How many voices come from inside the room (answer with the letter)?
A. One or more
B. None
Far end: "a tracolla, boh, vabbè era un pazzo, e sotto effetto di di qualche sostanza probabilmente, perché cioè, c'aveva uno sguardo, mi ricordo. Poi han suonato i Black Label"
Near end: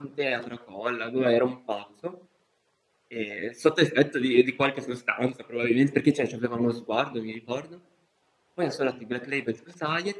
B